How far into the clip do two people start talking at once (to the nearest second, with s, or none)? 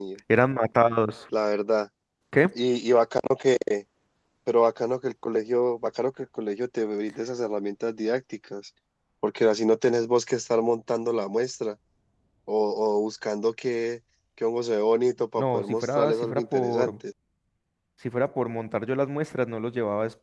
15 s